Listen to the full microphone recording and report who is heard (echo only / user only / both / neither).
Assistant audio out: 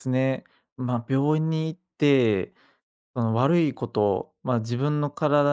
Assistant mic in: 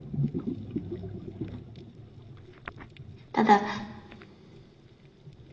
user only